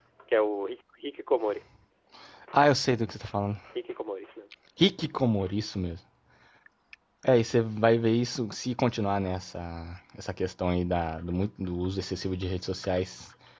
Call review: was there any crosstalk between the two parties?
No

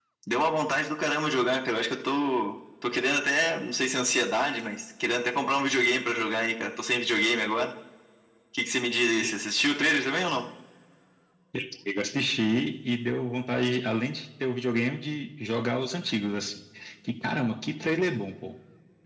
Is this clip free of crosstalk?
Yes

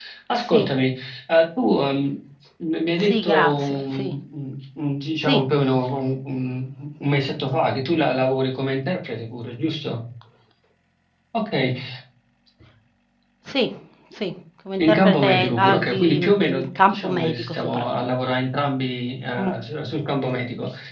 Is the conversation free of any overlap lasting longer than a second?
No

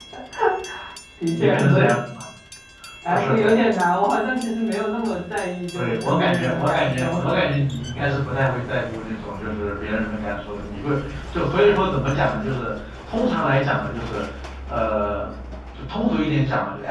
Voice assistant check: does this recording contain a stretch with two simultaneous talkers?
Yes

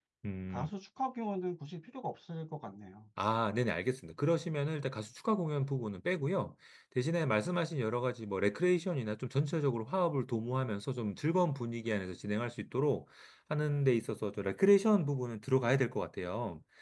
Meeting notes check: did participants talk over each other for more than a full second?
No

